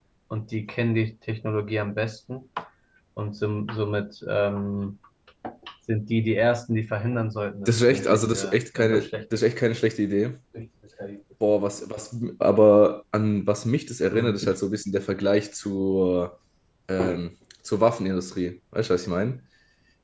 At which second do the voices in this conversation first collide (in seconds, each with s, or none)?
7.7 s